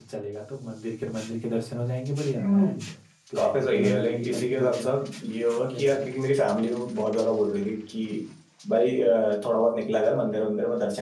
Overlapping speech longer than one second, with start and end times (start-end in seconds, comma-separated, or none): 3.4-4.9